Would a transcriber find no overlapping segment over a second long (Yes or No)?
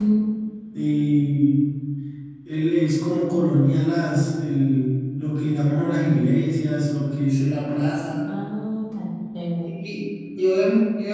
Yes